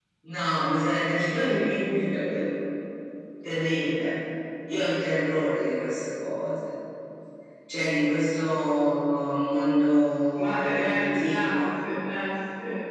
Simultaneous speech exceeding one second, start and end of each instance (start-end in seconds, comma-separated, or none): 10.4-11.6